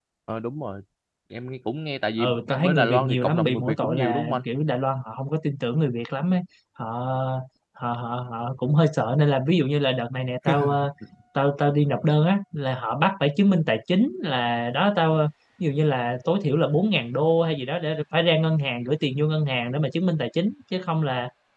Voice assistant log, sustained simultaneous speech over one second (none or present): present